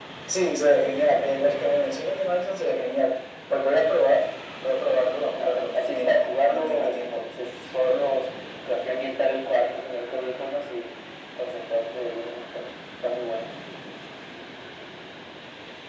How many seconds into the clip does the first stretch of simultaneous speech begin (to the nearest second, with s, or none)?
5 s